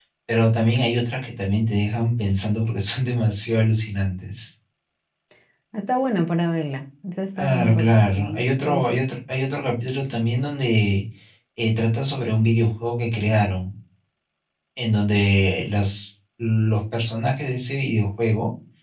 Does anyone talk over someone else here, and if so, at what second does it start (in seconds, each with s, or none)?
7.4 s